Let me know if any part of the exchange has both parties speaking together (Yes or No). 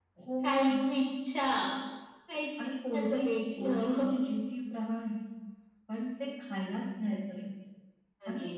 Yes